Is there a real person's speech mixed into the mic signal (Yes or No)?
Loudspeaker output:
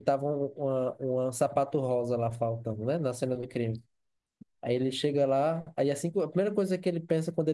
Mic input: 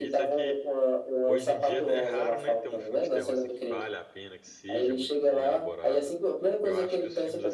Yes